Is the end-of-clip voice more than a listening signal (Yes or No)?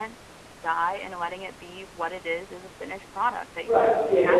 Yes